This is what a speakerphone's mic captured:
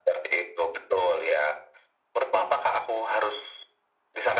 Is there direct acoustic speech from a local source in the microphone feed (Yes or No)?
No